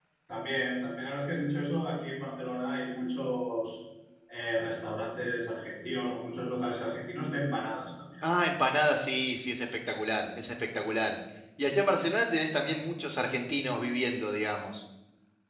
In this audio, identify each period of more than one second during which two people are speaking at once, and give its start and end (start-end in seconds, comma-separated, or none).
none